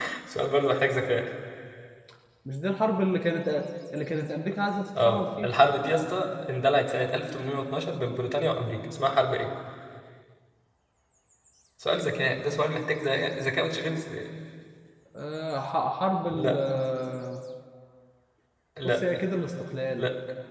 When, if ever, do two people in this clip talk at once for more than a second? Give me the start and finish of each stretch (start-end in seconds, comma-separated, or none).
none